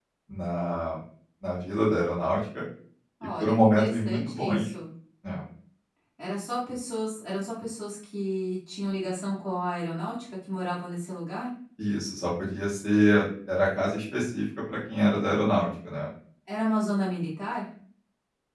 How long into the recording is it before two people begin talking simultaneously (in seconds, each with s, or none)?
3.4 s